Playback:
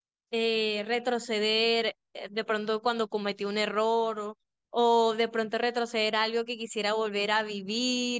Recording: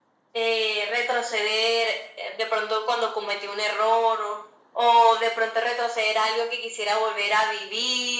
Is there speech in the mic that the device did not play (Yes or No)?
No